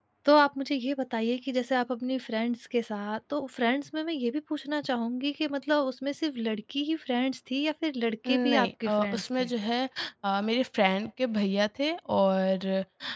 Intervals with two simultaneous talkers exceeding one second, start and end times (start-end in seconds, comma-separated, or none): 8.3-9.5